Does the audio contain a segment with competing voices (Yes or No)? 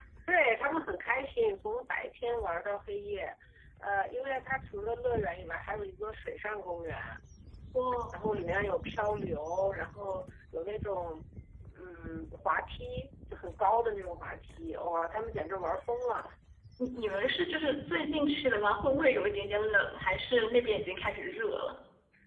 No